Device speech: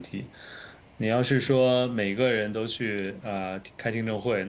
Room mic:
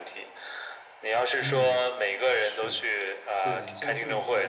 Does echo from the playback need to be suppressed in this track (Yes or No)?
Yes